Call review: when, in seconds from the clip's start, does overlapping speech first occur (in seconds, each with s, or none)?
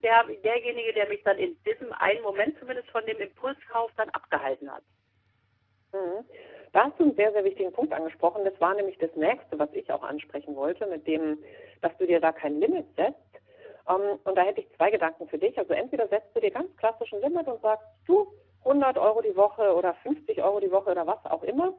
none